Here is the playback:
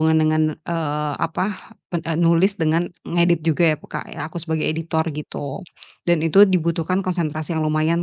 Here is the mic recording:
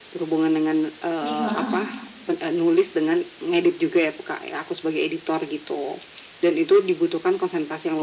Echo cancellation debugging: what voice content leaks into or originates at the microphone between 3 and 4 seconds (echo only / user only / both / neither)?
echo only